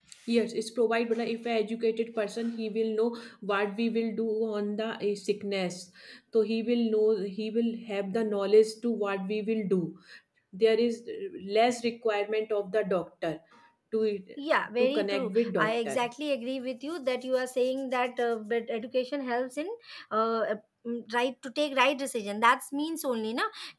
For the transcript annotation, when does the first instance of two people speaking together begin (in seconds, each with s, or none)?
14.8 s